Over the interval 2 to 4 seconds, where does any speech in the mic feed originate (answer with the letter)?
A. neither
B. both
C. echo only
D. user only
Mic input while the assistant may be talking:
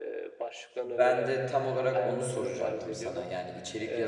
B